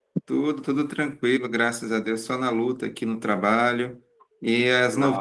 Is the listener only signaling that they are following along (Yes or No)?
Yes